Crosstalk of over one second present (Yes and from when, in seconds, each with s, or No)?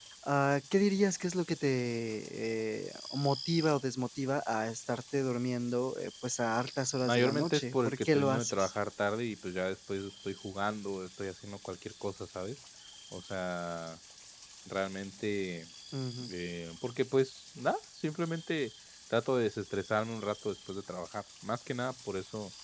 Yes, from 7.0 s